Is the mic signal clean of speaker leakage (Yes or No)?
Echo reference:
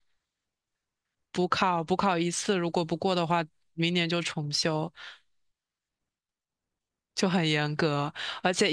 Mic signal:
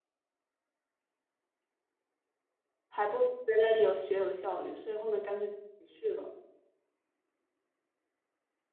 Yes